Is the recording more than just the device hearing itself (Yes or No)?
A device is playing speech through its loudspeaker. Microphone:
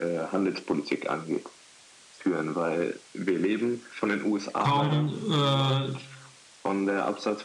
Yes